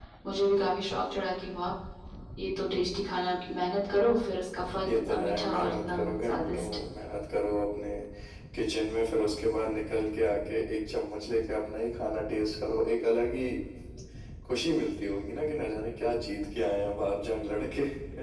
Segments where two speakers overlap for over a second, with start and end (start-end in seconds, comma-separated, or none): 4.9-6.7